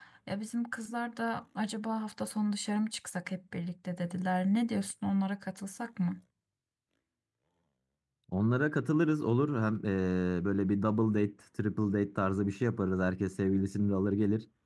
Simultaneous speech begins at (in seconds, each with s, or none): none